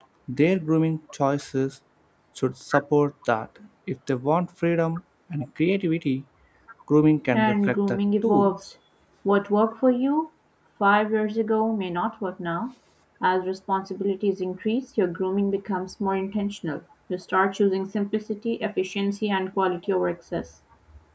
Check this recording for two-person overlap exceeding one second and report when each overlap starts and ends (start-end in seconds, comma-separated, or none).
7.3-8.5